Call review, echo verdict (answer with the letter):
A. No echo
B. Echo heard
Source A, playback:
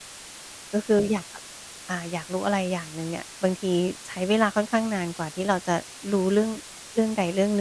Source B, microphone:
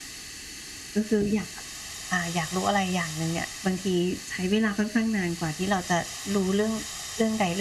B